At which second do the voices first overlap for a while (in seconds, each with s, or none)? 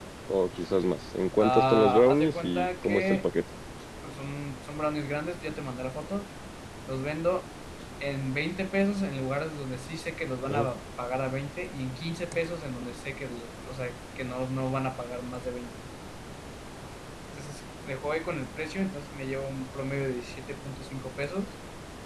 1.4 s